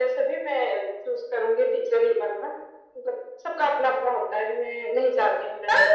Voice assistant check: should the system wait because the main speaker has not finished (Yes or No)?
No